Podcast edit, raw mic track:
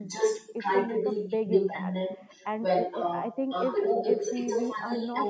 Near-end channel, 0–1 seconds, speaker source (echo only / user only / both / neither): both